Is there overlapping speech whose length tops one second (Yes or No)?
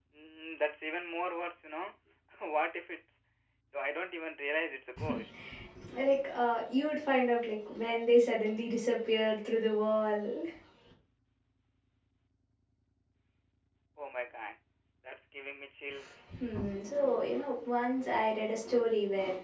No